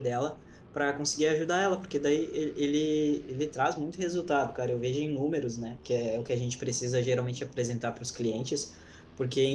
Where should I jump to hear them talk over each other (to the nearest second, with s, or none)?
none